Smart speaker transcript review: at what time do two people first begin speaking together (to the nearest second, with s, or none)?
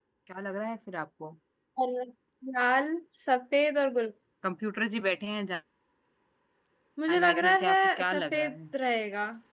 7 s